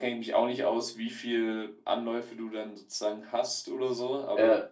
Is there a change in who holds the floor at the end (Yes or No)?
No